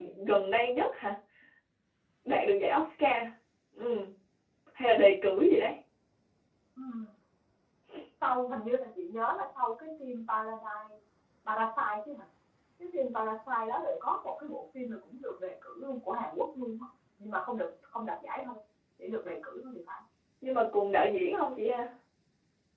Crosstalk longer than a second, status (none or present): none